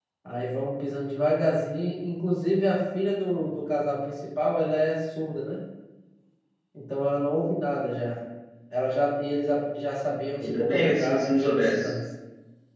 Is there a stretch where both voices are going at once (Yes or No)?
Yes